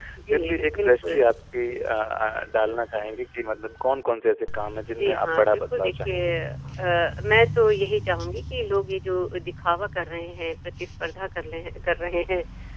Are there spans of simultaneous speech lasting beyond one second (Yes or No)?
Yes